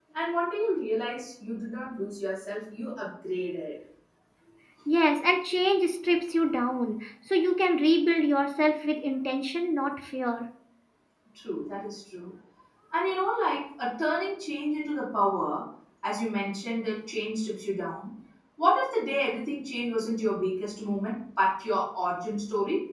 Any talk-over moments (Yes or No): No